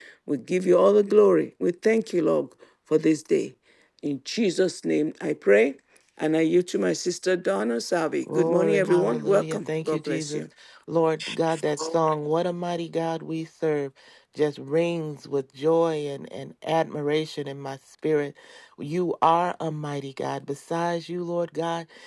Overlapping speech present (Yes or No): Yes